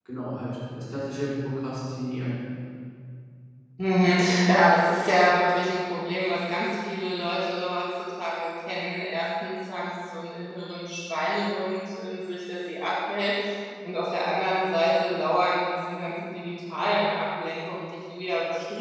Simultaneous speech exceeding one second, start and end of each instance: none

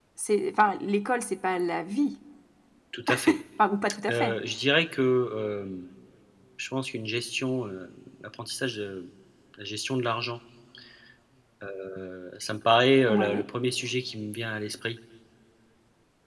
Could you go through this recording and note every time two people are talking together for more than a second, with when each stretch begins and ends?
none

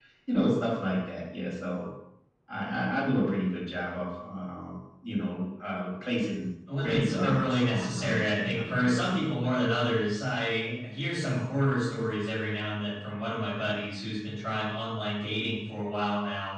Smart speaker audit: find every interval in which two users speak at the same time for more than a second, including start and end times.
6.8-9.2

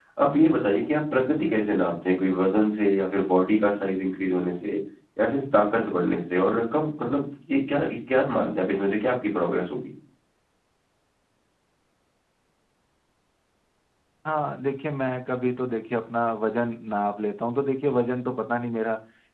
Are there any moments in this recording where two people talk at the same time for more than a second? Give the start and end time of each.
none

